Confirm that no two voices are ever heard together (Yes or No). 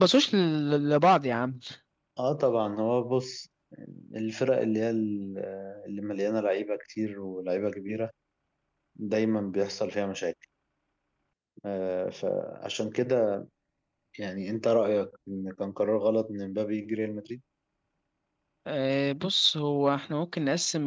Yes